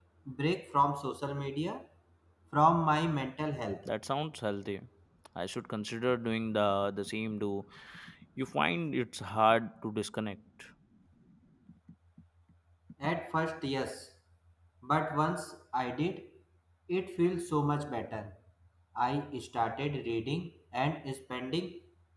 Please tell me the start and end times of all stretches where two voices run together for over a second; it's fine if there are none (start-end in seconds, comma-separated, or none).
none